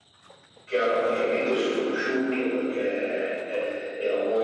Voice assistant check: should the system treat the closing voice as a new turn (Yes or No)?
No